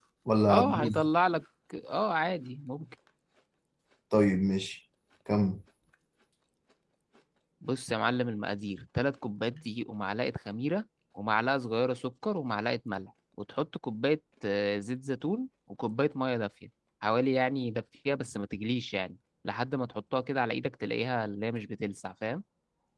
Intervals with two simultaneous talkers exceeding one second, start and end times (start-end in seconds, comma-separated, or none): none